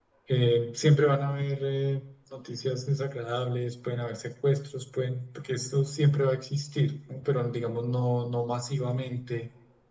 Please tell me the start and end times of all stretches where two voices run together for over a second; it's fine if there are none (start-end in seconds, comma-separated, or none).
none